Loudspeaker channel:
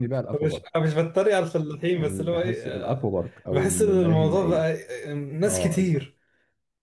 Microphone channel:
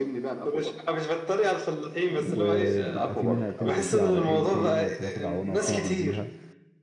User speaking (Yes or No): Yes